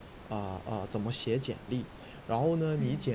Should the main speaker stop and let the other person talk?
No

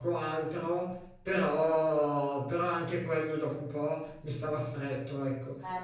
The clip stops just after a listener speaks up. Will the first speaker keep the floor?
No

